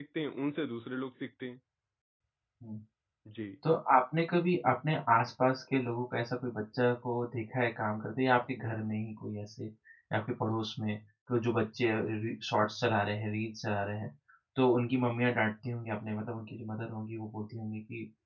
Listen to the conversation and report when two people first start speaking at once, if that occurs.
none

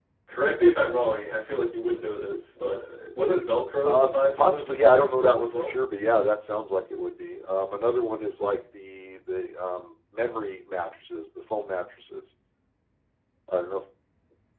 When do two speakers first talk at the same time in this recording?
3.9 s

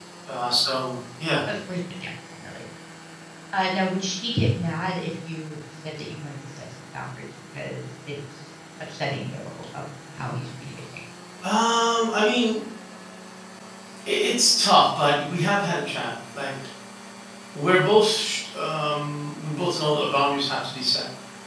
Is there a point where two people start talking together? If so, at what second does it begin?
none

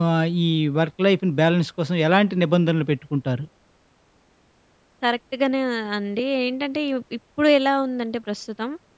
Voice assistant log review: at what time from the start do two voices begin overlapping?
none

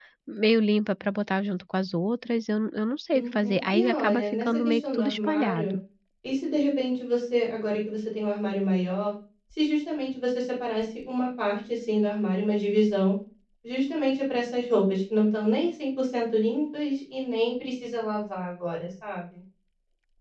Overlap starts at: 3.1 s

